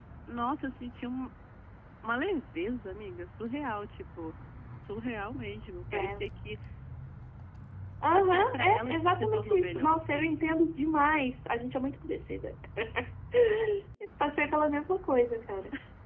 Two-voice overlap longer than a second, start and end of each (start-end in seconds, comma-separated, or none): 8.1-10.6